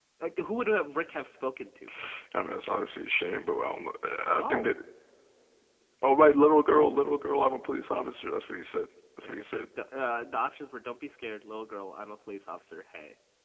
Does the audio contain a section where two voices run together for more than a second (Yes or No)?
No